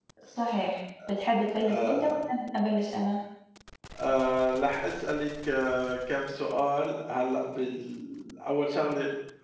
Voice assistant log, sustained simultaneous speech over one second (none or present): none